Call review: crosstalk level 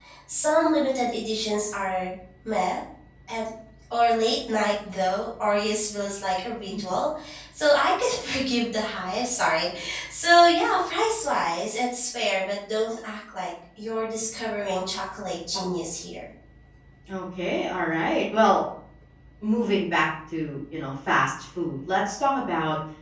none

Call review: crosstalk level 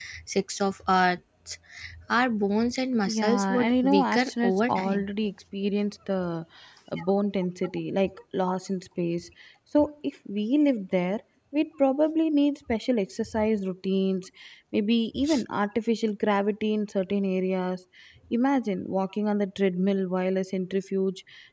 present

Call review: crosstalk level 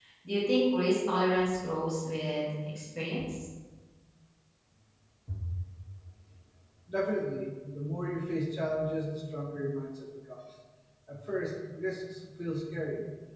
none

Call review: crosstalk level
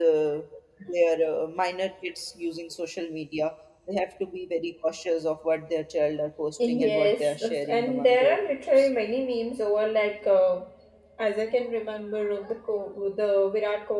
present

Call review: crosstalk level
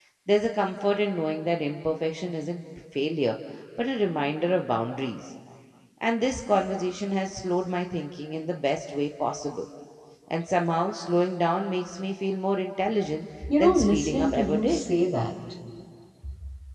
present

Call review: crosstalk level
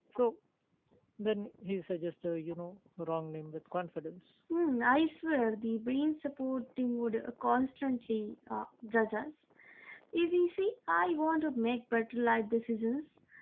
none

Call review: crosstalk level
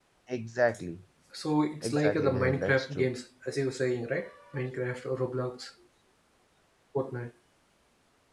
present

